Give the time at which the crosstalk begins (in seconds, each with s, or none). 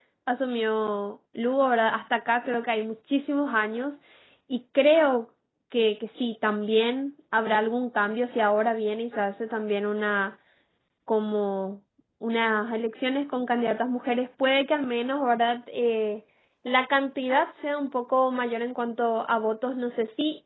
none